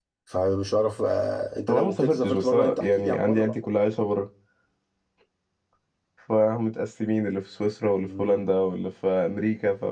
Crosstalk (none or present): present